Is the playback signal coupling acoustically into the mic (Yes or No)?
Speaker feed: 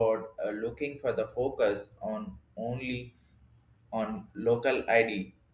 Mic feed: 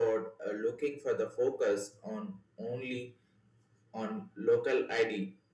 Yes